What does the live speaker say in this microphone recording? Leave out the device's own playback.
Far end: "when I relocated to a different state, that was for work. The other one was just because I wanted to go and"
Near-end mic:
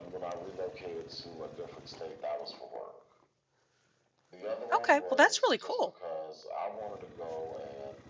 Okay, well, that's really cool.

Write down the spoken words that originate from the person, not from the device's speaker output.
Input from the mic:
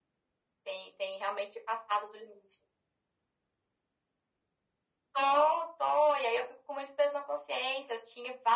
none

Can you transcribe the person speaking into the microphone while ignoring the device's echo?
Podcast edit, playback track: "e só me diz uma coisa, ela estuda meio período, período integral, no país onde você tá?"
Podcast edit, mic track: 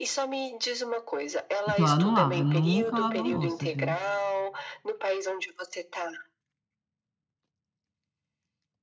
Então ela não lava, nunca lavou louça, viu.

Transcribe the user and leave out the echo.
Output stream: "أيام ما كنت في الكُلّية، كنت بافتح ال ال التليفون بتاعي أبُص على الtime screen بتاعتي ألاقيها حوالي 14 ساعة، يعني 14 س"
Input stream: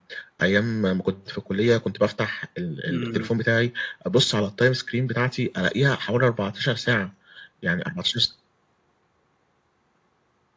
إمم، إمم.

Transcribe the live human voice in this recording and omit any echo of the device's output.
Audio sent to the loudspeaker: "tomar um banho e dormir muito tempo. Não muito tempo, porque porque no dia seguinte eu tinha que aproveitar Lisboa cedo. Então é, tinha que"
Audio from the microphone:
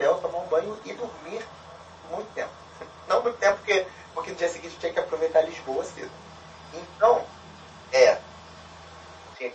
none

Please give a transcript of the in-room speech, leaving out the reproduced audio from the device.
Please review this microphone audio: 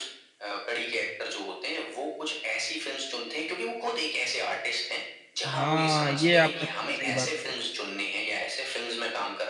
हाँ ये आपने बहुत सही बात की

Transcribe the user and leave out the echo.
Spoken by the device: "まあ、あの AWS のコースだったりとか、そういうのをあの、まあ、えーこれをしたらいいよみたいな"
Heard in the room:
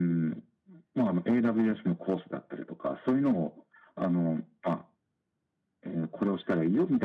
none

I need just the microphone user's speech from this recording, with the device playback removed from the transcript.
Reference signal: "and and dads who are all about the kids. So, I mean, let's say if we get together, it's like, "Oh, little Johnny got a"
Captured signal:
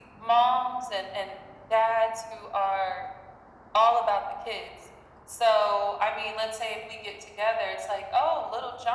none

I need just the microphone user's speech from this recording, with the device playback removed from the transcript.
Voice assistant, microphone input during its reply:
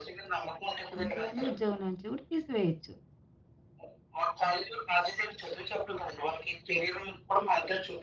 అంతేగాని ఉద్యోగం నుంచి కూడా తీసివేయొచ్చు.

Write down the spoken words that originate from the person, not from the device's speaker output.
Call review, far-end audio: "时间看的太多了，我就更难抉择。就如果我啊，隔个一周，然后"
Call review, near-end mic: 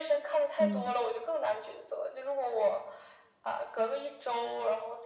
嗯。

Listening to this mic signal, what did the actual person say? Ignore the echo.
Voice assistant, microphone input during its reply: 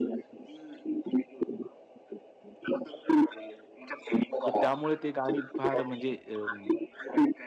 तर त्यामुळे ते गाणी फार म्हणजे अं,

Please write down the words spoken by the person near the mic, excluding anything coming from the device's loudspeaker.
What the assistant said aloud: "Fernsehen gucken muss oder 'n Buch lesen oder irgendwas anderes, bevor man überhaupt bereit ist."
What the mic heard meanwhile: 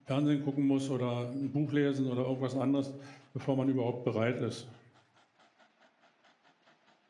none

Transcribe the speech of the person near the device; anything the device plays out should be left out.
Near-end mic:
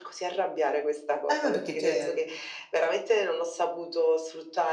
Eh, beh, perché te

